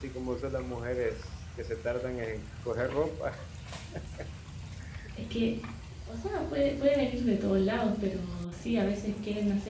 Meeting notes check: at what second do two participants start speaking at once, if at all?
none

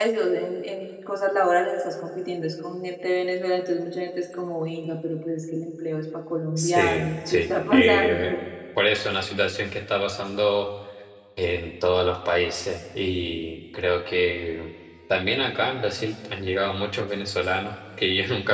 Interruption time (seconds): 6.6 s

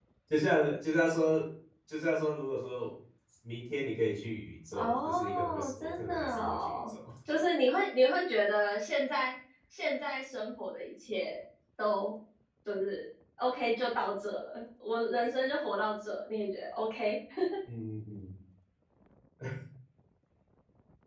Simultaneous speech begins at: 4.7 s

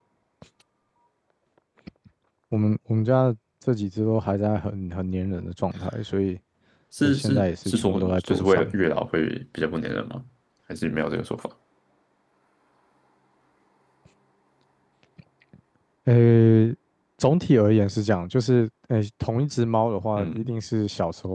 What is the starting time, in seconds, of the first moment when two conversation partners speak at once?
7.0 s

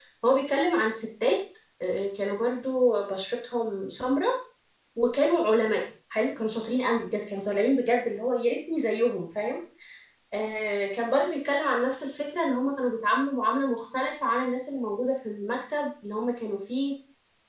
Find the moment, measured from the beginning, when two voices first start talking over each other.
none

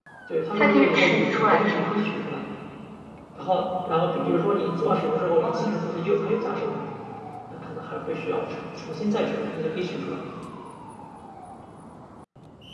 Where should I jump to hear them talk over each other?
0.5 s

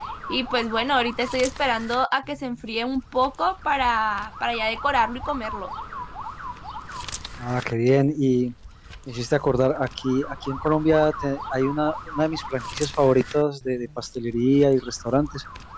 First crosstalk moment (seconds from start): none

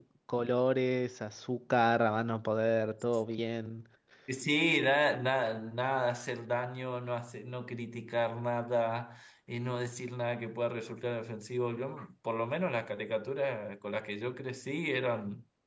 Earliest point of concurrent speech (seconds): none

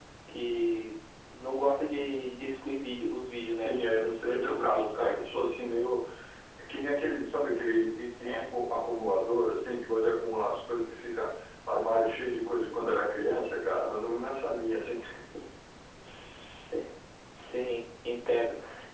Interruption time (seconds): 3.6 s

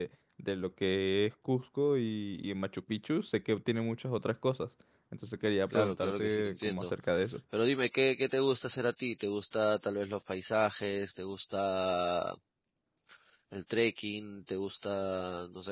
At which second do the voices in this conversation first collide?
5.7 s

